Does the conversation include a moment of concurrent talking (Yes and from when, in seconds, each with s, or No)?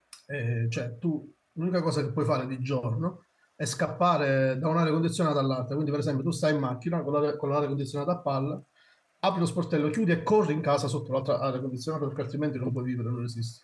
No